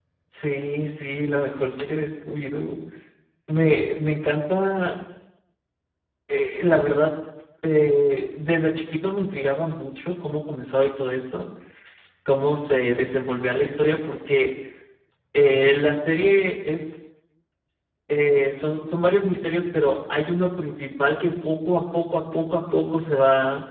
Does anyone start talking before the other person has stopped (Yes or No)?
No